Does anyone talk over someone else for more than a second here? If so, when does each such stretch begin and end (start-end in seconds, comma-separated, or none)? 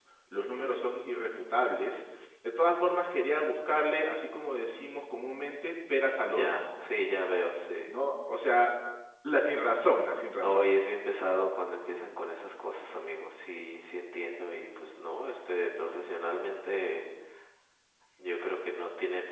none